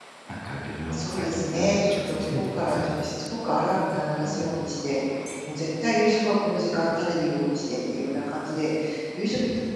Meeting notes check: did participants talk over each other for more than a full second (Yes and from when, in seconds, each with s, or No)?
Yes, from 0.9 s